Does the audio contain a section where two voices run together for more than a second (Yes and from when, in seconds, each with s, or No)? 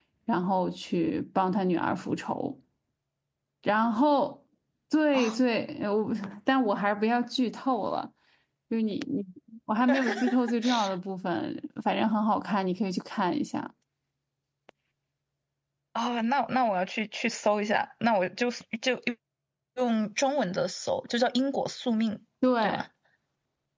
No